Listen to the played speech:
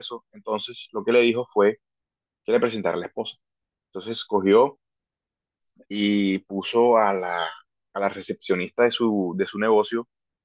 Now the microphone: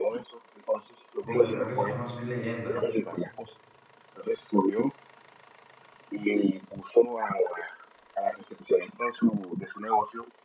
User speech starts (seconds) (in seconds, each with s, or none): 1.2 s